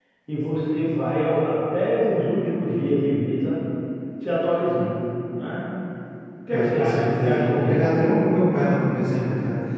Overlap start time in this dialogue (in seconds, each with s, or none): 6.5 s